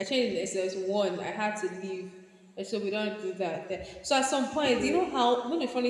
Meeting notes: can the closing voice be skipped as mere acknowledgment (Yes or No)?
Yes